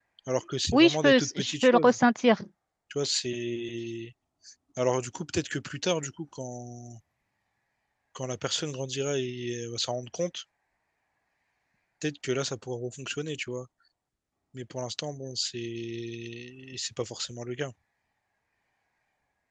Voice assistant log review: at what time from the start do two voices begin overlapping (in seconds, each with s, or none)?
0.7 s